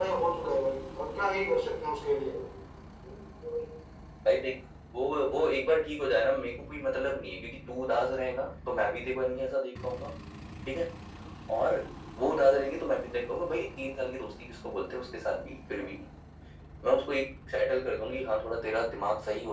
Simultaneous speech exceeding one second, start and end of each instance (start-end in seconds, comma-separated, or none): none